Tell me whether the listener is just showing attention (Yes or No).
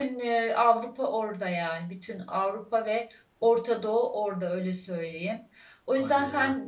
Yes